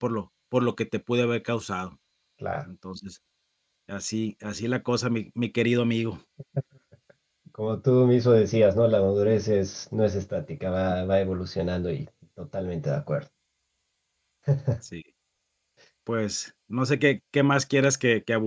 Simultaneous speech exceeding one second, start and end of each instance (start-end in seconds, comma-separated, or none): none